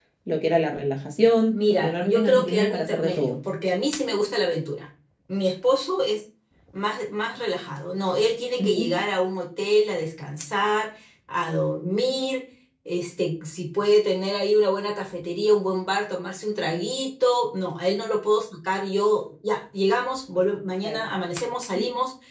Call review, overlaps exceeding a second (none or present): present